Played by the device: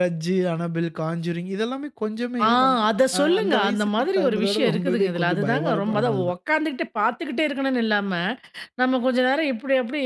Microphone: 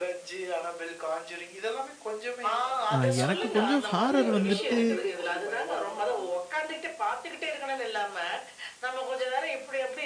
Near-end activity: present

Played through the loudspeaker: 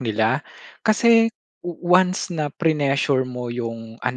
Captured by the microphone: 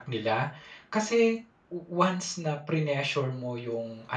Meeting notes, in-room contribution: none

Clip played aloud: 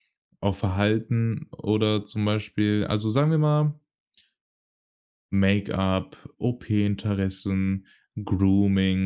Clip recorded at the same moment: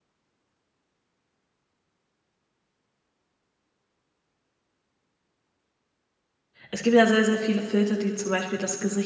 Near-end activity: present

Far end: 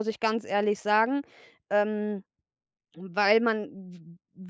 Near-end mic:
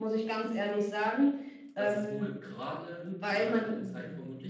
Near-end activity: present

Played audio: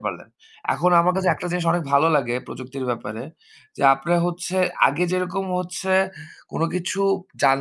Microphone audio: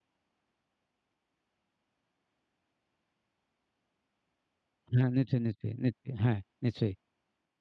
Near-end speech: present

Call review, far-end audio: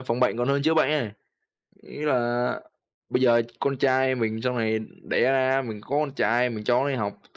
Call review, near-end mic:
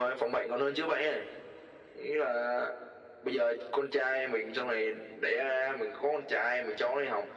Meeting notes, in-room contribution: none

